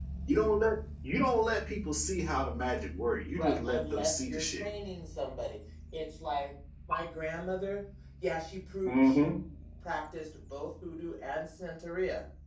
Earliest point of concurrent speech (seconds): 3 s

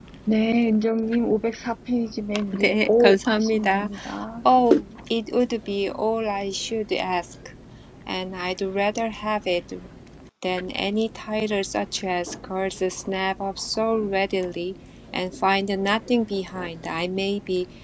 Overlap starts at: 2 s

